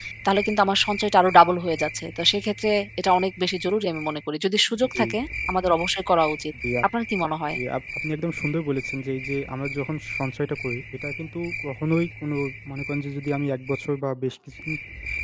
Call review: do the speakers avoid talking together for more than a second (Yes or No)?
Yes